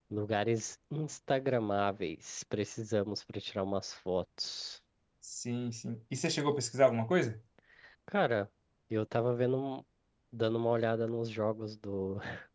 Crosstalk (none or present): none